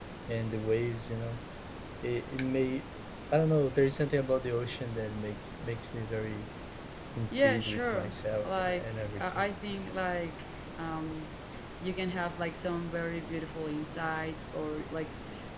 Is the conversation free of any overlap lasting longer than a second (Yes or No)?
No